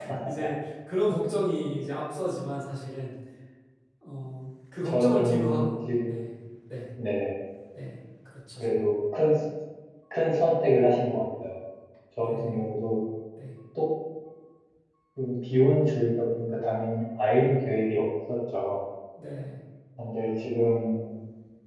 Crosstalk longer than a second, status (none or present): present